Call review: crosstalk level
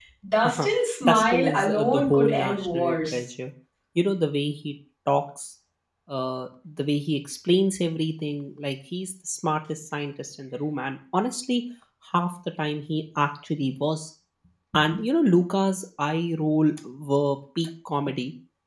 present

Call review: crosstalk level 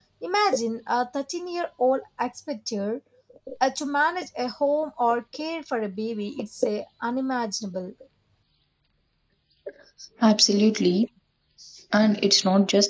none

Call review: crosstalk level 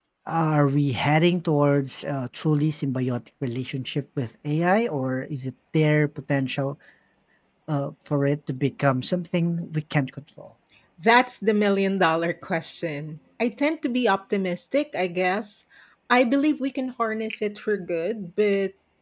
none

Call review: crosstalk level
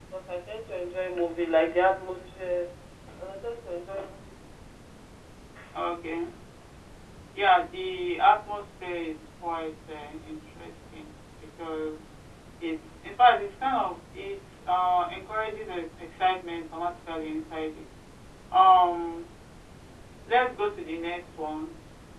none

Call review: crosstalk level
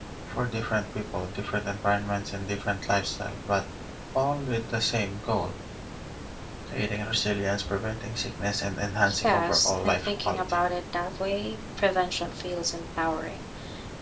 present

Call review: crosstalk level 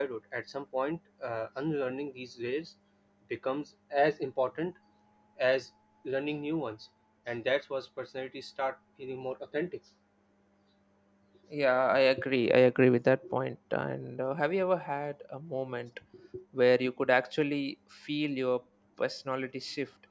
none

